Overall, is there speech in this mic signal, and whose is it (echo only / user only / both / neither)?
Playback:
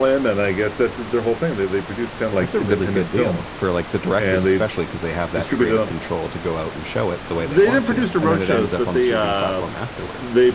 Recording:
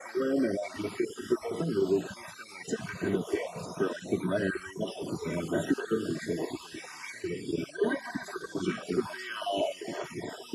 echo only